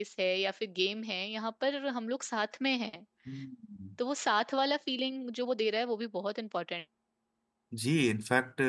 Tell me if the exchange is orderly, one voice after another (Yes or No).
Yes